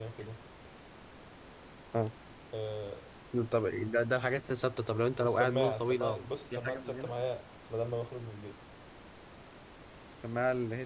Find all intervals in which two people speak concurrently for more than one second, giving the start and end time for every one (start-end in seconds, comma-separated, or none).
5.2-7.1